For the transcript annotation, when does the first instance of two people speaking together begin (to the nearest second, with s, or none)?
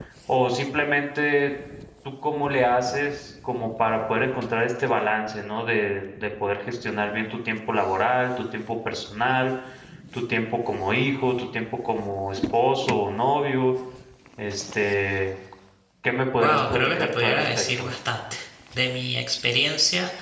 16 s